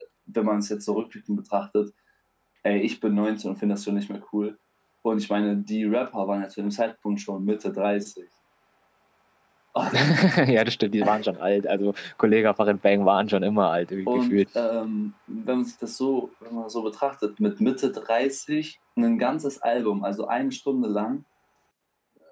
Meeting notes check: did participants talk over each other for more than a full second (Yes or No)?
No